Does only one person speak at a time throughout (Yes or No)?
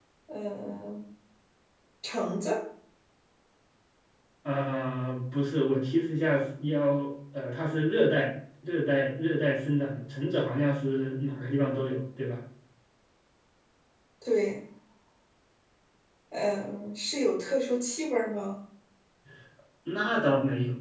Yes